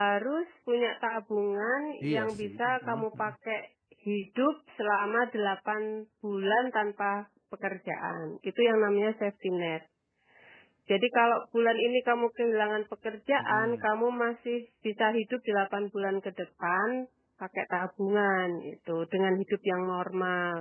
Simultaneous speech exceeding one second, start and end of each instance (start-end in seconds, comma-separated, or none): 2.0-3.2